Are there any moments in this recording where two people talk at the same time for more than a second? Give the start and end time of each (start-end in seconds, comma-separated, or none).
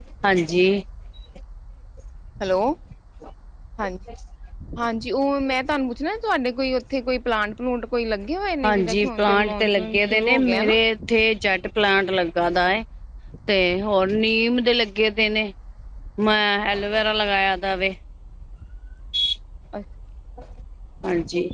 8.6-10.8